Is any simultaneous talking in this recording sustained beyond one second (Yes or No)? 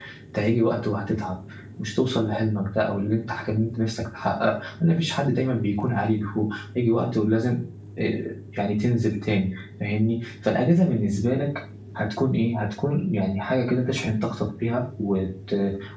No